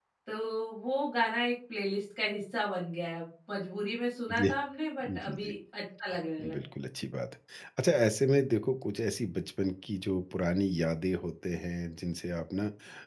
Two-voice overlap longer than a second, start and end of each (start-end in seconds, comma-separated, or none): none